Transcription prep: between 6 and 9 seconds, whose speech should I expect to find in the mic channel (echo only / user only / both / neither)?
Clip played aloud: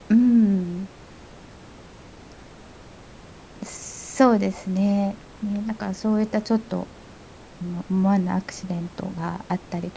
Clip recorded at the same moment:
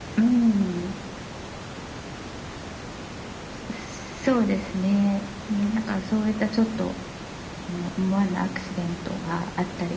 echo only